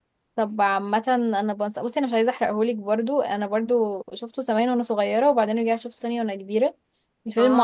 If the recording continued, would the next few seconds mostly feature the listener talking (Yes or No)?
Yes